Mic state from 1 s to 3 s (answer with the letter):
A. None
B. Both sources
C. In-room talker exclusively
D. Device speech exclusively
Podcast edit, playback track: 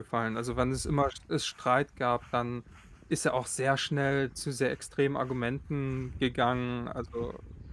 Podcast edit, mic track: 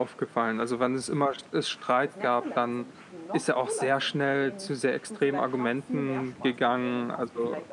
B